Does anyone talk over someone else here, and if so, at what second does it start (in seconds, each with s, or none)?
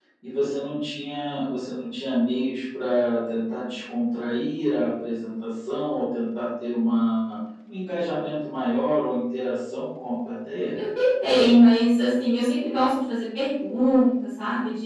none